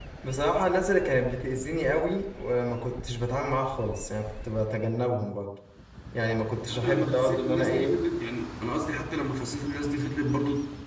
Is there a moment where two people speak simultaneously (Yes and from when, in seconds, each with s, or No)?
Yes, from 6.7 s